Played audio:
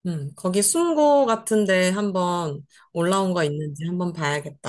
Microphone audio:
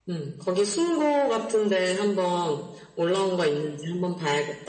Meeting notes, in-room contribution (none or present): none